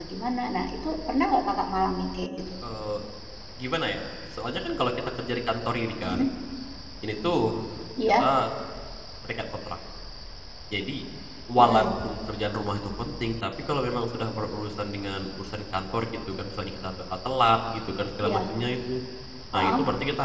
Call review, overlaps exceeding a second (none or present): none